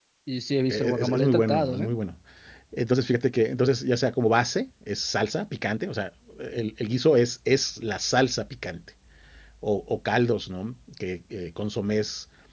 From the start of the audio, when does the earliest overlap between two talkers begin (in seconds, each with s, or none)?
0.7 s